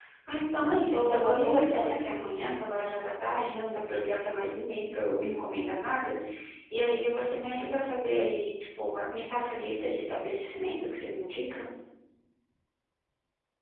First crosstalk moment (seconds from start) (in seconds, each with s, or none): 0.8 s